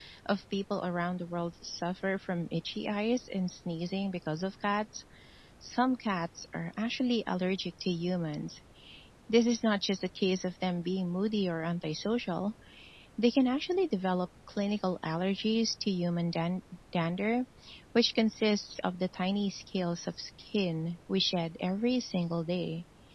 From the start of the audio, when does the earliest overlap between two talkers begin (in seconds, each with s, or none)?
none